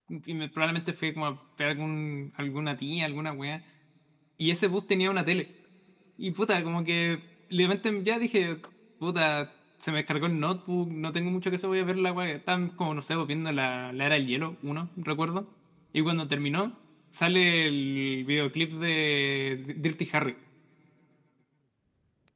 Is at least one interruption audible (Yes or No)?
No